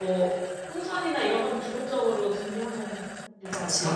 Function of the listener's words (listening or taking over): taking over